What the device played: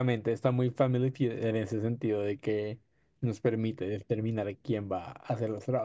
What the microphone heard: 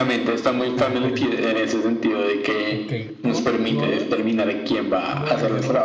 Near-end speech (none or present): present